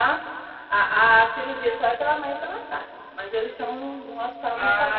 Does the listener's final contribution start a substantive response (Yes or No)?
Yes